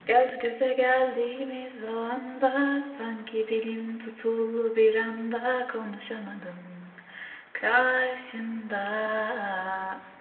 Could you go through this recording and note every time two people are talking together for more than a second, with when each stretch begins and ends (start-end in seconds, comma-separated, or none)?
none